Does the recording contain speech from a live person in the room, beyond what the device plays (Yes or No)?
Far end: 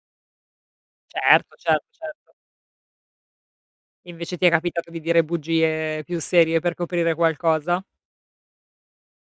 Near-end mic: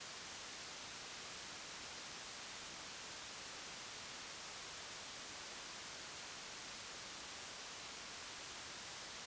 No